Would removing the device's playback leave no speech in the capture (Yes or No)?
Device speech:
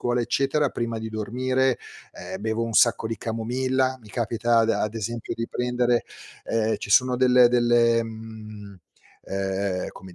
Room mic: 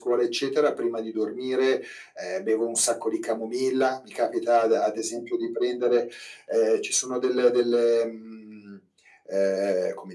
Yes